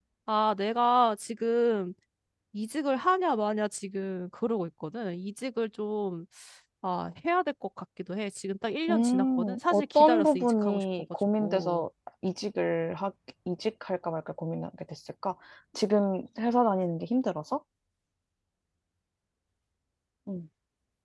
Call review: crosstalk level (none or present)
present